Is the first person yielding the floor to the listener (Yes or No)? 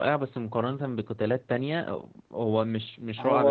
Yes